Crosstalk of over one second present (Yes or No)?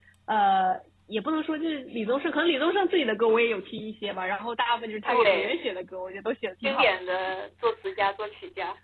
No